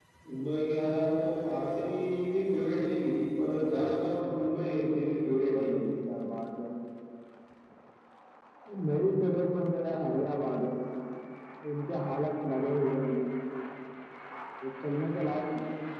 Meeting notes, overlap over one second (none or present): none